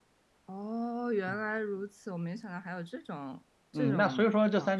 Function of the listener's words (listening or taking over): taking over